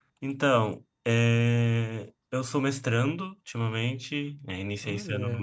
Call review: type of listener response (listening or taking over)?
listening